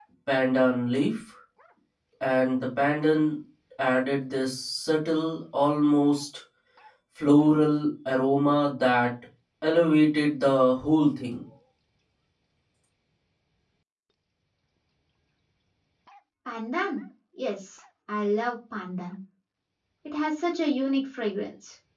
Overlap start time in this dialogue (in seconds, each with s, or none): none